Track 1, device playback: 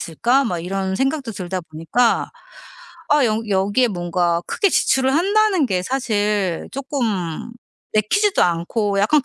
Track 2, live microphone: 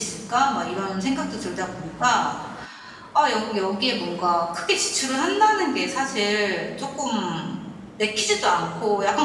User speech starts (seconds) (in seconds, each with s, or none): none